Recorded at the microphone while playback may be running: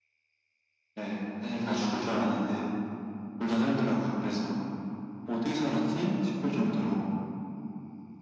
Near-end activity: none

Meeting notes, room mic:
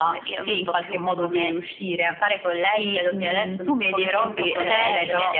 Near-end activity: present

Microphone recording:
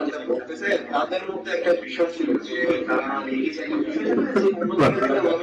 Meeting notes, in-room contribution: present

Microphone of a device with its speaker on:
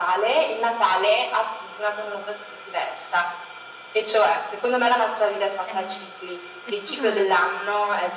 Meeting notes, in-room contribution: present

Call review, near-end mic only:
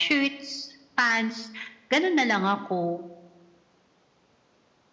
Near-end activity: none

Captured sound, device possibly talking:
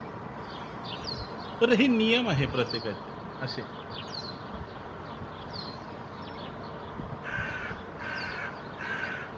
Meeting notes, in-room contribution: present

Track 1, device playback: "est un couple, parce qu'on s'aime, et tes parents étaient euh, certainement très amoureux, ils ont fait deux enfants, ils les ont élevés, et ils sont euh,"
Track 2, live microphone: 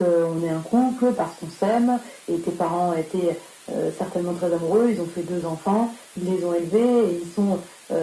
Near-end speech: none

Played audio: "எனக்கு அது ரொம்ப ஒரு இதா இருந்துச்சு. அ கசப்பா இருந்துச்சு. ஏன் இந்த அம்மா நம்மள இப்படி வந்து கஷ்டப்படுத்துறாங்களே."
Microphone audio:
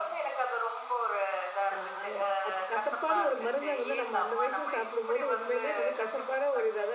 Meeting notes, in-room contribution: present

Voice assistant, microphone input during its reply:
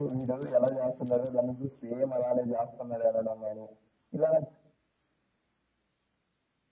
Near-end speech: none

